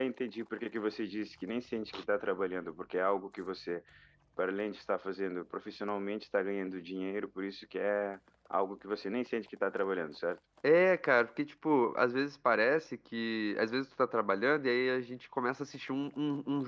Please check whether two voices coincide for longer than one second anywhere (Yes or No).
No